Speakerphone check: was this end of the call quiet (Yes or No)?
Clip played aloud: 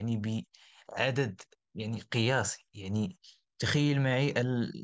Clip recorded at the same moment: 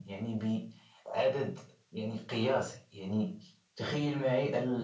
Yes